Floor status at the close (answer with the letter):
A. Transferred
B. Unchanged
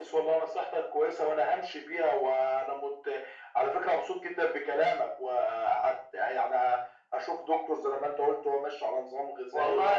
A